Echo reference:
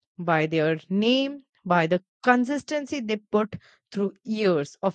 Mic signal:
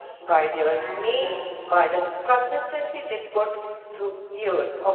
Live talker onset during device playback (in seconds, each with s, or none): 0.8 s